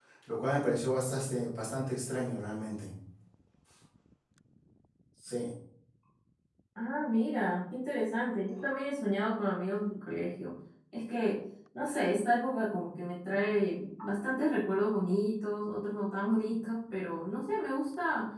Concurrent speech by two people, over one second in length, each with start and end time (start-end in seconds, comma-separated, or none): none